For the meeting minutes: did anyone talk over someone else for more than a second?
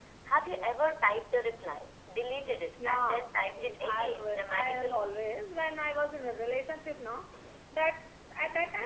Yes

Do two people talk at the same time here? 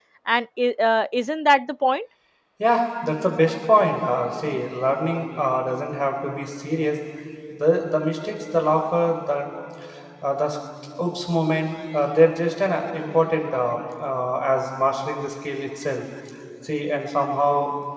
No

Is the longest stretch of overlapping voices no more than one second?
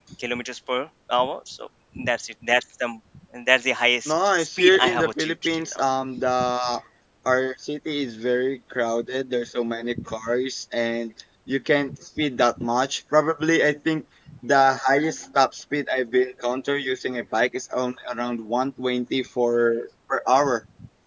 No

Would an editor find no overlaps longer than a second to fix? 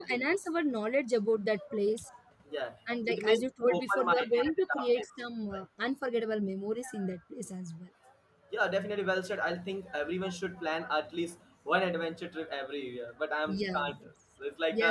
No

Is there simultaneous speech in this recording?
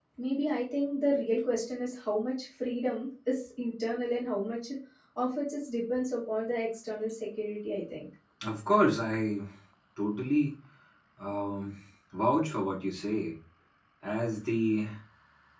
No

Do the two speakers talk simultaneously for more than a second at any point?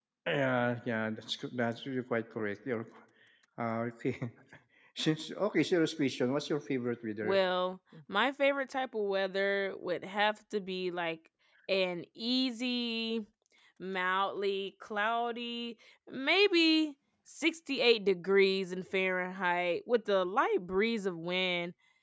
No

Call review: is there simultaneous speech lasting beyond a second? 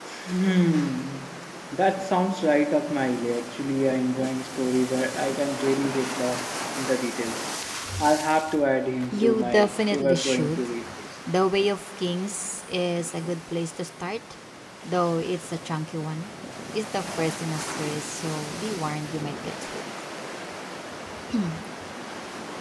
Yes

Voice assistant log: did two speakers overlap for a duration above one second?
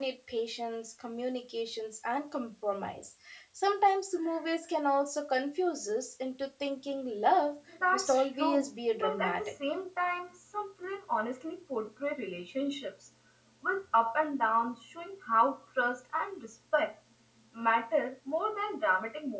Yes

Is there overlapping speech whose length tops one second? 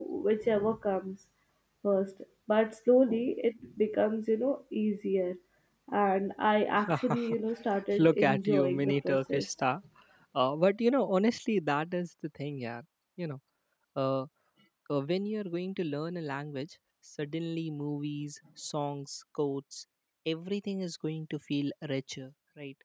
Yes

